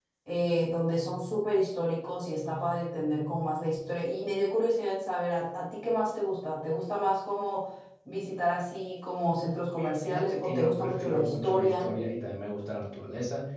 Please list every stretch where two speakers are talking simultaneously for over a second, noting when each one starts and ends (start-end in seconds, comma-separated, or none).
9.8-11.9